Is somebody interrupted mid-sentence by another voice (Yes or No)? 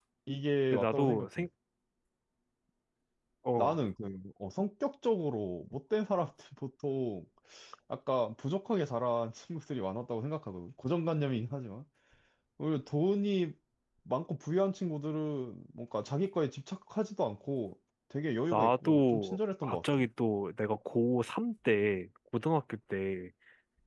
Yes